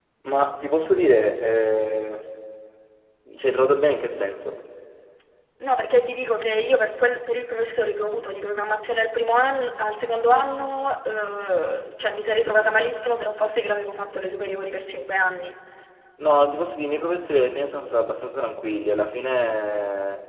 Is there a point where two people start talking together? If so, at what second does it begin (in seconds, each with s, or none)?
none